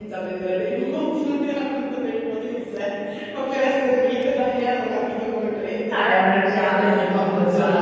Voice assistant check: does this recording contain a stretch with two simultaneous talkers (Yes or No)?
Yes